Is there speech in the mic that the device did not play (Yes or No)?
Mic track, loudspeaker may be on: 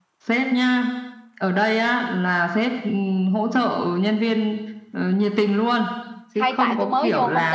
Yes